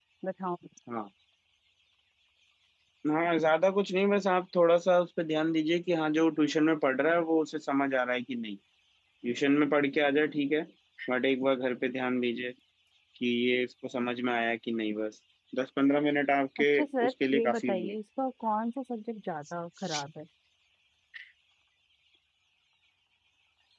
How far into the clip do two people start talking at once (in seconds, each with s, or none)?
16.7 s